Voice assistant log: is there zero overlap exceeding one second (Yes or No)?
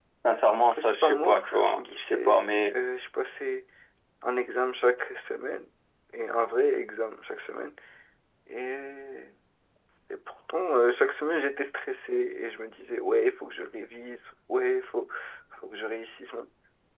No